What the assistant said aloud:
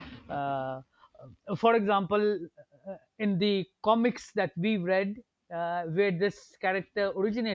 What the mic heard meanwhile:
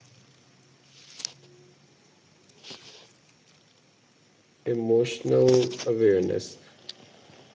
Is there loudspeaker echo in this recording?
No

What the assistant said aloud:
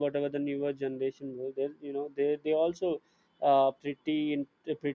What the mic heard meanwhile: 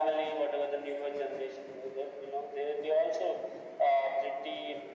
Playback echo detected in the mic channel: Yes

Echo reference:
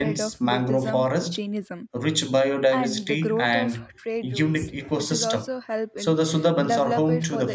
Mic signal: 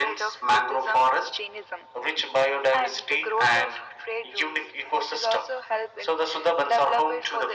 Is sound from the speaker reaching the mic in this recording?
Yes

